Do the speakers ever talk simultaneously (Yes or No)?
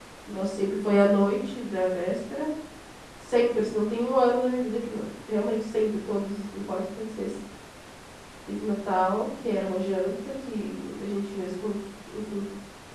No